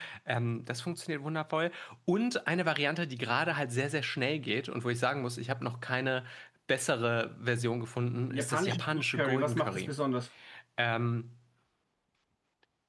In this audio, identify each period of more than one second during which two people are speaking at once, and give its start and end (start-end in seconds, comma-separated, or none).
8.3-9.9